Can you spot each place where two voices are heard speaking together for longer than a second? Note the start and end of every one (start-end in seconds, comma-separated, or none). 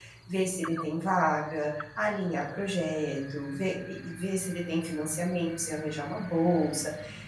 none